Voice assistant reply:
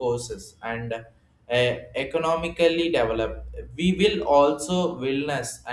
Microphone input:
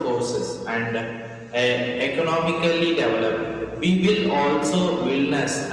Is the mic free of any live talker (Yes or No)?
Yes